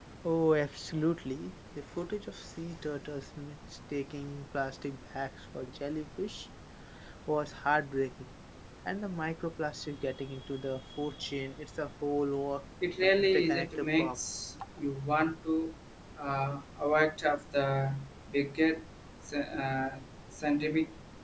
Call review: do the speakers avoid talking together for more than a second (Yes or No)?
No